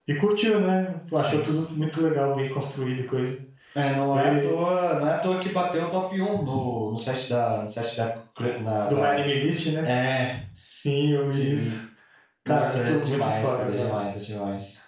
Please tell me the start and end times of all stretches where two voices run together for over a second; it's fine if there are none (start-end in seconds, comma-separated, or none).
12.5-14.0